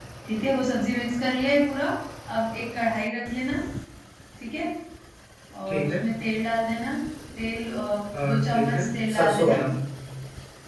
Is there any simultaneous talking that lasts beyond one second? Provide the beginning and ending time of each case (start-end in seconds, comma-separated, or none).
8.2-9.6